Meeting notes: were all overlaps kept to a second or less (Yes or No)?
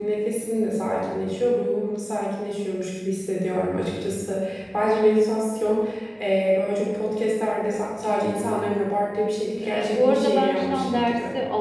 No